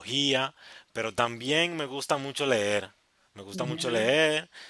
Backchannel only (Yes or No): Yes